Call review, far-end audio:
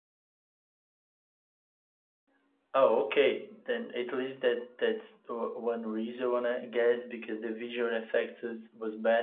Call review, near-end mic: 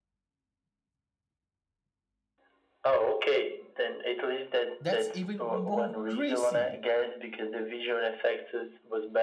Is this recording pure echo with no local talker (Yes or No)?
No